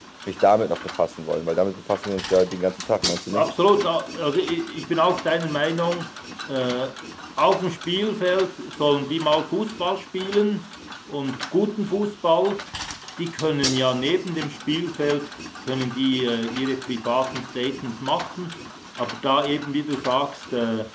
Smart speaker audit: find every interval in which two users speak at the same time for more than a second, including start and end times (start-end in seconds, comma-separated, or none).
none